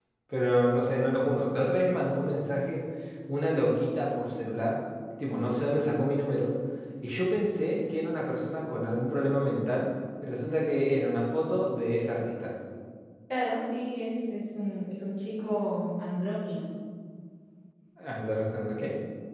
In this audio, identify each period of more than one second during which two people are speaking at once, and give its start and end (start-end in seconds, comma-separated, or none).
none